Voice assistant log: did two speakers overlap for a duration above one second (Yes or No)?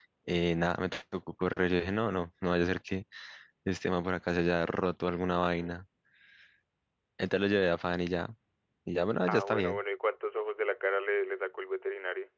No